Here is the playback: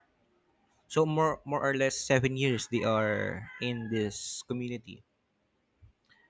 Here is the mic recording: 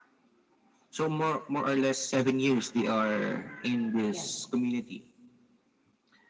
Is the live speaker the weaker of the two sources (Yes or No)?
Yes